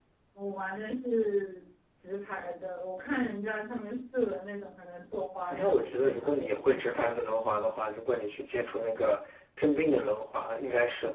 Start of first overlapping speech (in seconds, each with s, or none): 5.5 s